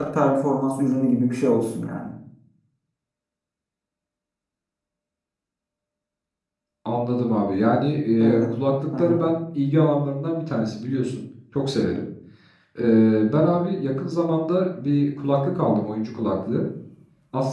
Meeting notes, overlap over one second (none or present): none